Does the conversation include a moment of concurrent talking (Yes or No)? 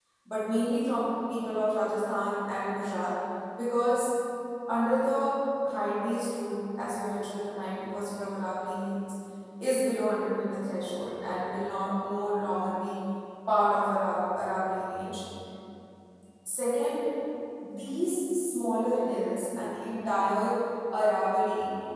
No